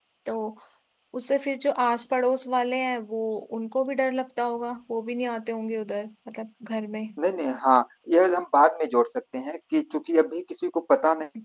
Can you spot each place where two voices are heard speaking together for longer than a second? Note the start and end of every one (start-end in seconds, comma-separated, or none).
none